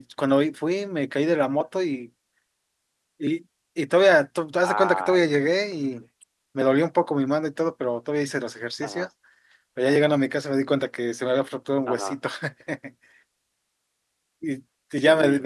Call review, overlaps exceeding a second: present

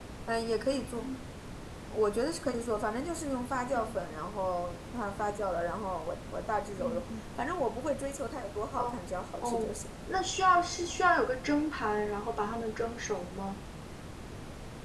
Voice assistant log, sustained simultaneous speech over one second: none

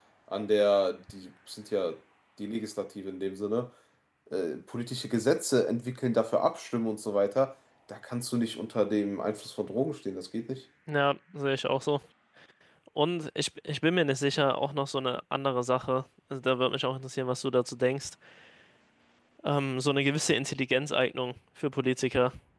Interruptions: none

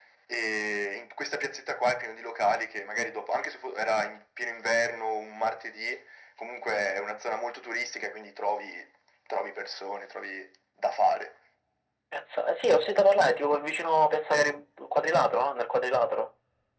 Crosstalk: none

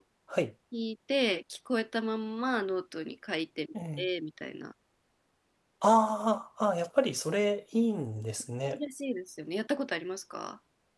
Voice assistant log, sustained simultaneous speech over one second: none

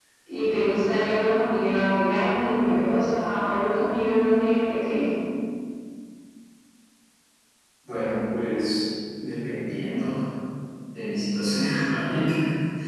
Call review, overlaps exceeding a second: none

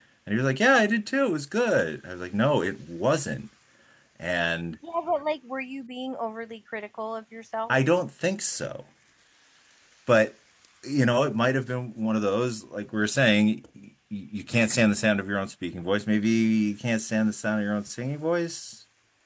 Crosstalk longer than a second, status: none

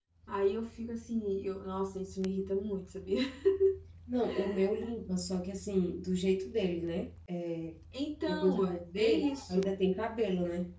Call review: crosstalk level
present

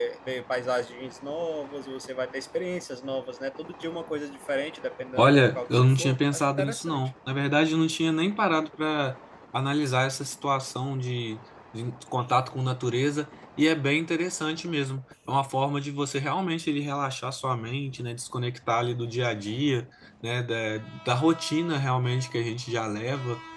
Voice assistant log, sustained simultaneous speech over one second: present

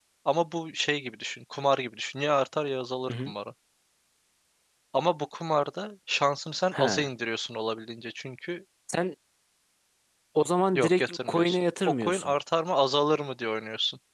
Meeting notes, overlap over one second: present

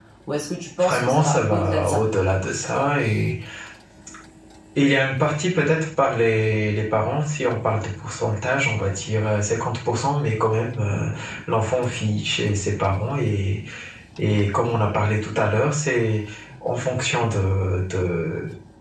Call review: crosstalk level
present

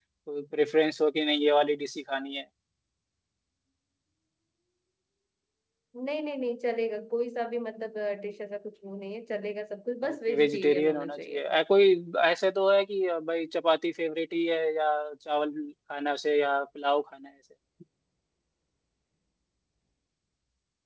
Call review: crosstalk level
present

